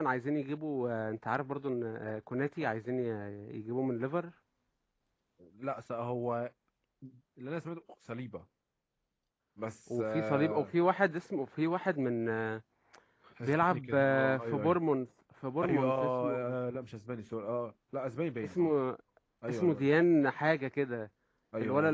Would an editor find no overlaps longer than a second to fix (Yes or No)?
No